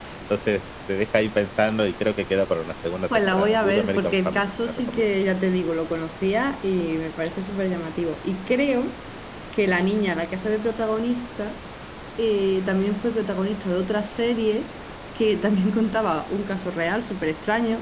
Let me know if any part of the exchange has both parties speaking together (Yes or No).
Yes